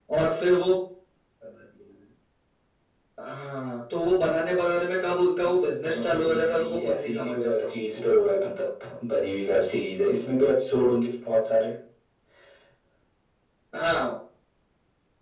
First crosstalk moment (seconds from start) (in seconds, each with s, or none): 5.6 s